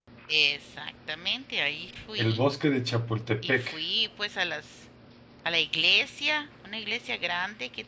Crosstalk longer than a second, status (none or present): none